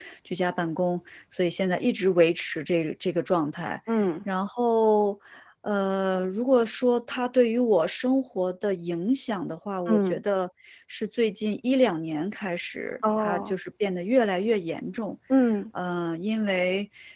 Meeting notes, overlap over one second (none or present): none